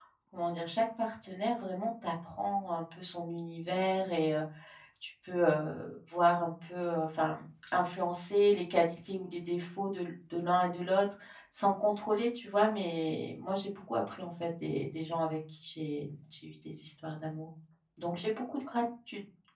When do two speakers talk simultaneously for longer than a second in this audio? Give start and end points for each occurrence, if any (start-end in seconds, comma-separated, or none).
none